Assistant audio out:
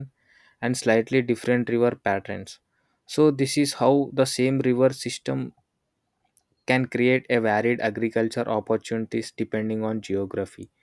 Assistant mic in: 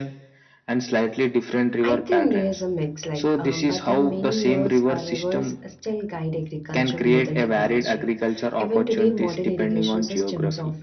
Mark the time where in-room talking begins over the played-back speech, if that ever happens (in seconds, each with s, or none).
1.8 s